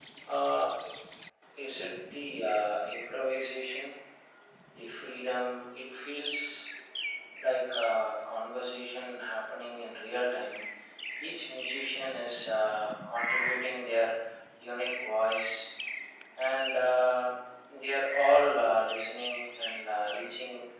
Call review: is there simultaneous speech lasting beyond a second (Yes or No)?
No